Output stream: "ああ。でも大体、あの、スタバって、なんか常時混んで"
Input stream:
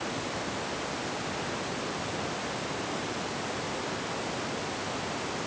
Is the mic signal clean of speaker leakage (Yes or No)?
Yes